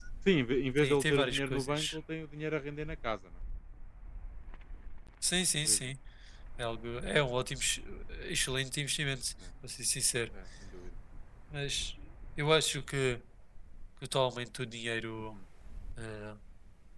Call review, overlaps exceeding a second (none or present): present